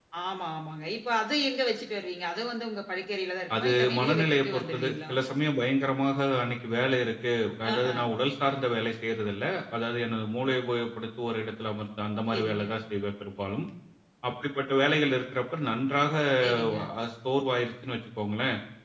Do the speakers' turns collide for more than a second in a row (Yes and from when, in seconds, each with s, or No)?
Yes, from 3.5 s